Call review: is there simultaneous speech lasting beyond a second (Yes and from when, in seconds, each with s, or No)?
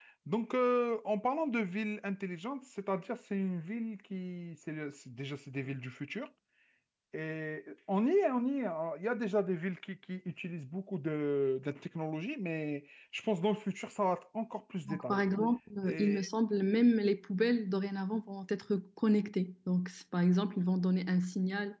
No